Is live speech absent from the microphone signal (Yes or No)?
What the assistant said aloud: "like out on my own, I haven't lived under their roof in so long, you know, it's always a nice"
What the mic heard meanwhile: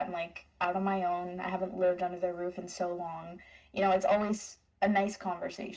Yes